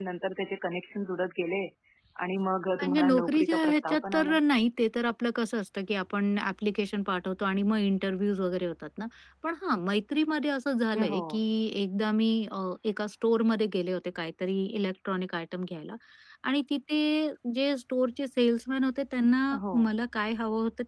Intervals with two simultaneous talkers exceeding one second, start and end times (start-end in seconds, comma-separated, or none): 2.8-4.3